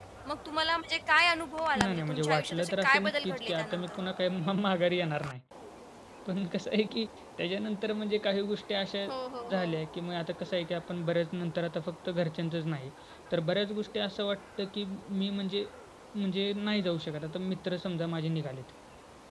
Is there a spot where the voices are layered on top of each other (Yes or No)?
Yes